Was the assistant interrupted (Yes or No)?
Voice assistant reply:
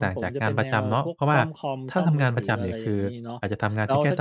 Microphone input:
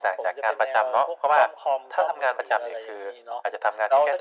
No